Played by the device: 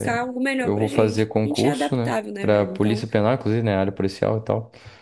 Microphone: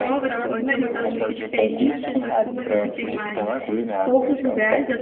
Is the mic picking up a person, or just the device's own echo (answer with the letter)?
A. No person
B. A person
B